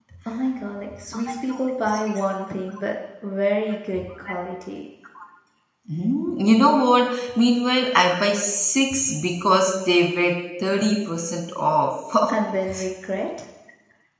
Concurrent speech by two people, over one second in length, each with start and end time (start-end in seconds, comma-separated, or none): none